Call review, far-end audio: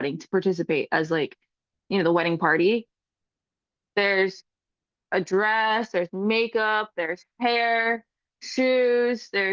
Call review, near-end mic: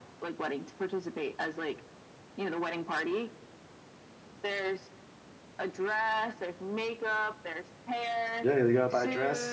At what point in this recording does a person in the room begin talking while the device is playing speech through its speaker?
8.4 s

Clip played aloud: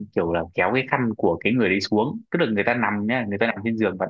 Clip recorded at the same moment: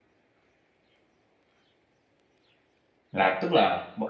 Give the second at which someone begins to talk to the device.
3.1 s

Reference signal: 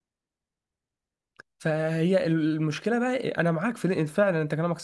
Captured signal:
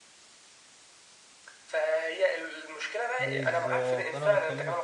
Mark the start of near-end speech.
3.2 s

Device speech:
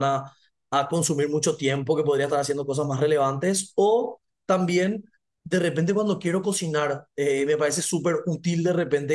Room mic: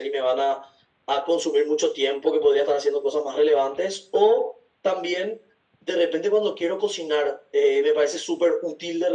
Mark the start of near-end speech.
none

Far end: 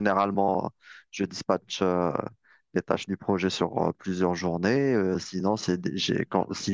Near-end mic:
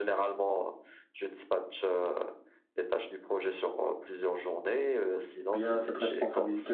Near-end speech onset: 5.5 s

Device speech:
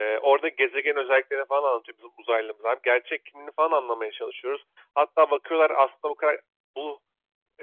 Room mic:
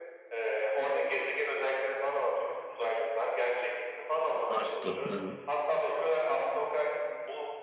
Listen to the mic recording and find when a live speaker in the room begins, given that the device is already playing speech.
4.5 s

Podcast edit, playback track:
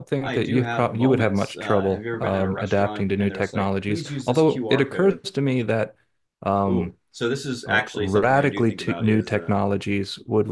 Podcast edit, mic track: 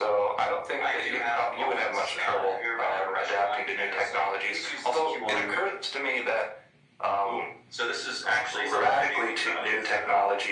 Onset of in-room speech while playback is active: 5.2 s

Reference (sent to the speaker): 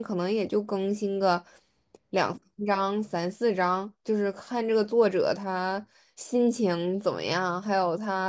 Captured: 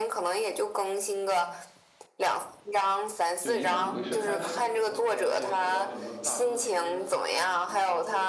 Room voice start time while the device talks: 3.4 s

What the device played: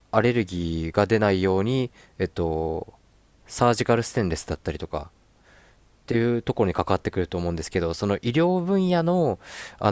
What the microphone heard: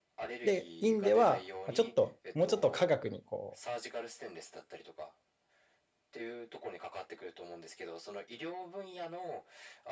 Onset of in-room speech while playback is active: 0.4 s

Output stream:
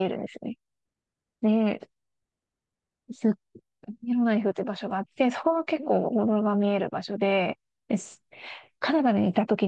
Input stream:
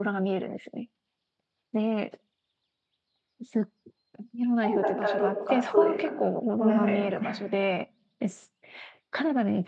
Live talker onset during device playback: 4.6 s

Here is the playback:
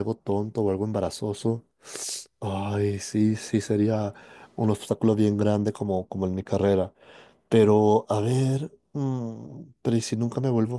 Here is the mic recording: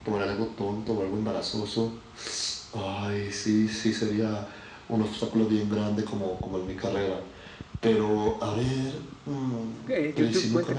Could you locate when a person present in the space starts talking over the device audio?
9.9 s

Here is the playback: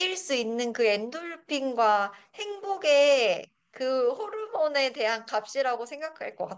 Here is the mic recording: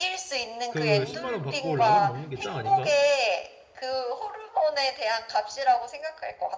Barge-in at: 0.7 s

